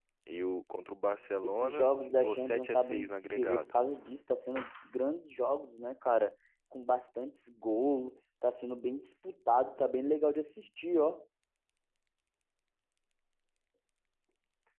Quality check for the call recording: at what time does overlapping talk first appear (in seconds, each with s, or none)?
1.4 s